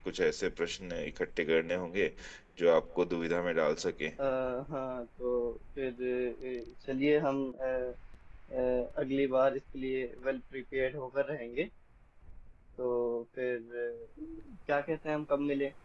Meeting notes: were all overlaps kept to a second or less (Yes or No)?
Yes